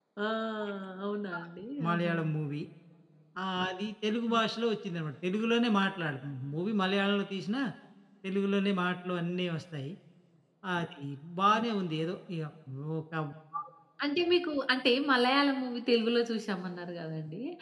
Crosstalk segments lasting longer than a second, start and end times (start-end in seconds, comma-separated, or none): none